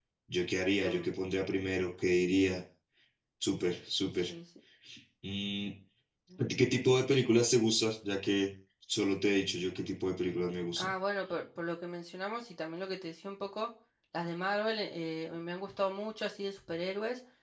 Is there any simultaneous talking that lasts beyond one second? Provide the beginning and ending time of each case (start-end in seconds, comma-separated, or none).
none